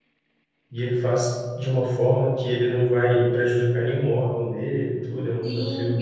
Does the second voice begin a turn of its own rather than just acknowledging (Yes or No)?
Yes